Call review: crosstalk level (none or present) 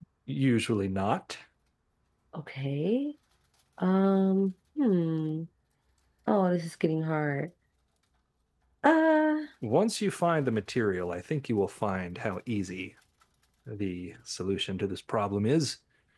none